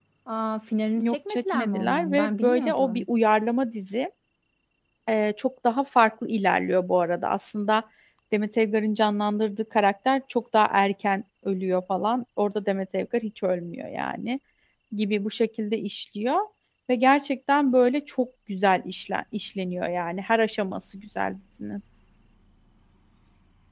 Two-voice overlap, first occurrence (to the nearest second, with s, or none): 1 s